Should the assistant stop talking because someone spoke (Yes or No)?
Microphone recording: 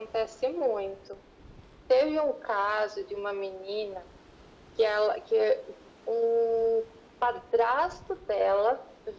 No